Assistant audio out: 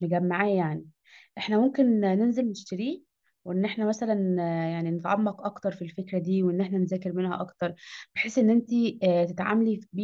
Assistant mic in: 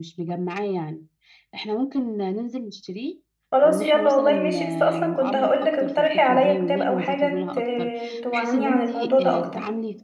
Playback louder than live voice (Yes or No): No